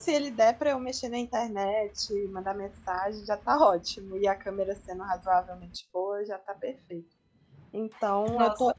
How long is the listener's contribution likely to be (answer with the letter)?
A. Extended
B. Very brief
B